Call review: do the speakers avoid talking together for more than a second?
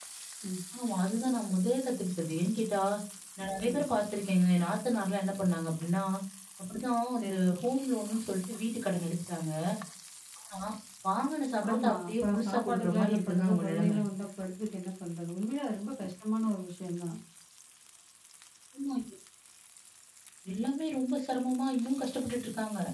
No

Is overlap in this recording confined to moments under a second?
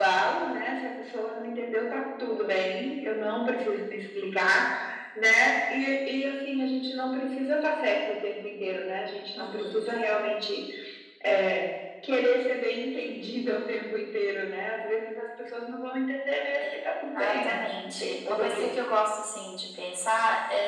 No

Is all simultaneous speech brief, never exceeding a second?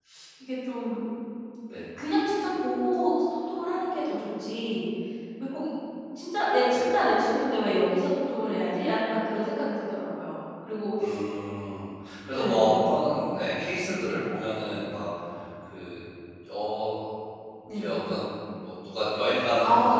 Yes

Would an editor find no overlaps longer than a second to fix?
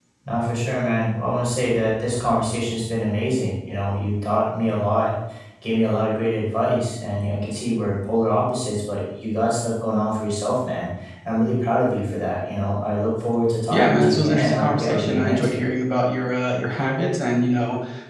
No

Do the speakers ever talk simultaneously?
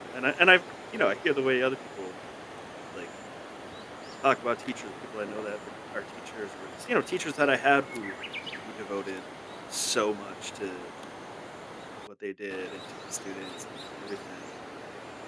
No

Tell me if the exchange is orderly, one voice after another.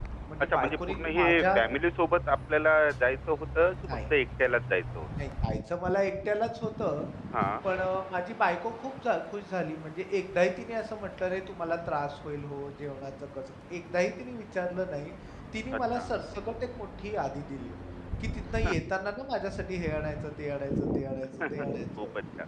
No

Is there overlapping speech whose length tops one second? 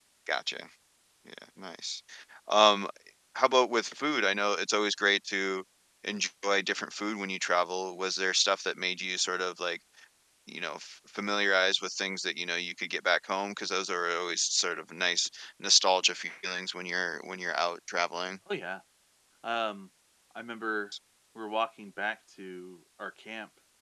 No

